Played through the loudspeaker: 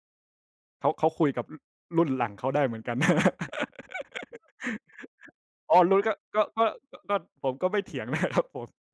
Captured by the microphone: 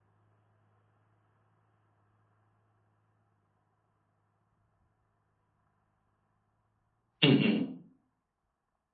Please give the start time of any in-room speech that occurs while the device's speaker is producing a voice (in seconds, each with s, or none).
7.2 s